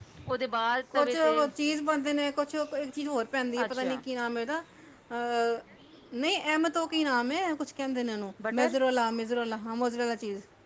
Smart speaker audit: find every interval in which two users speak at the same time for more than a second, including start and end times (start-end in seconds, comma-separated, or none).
none